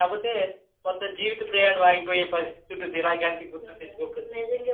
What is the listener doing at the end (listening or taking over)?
taking over